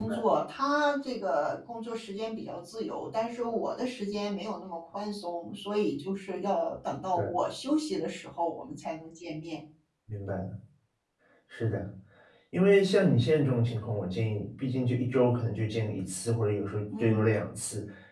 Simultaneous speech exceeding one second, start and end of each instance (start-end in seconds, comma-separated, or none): none